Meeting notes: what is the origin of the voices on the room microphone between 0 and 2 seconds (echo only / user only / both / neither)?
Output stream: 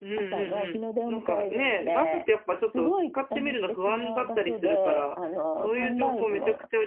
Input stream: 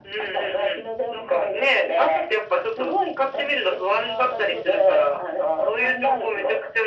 echo only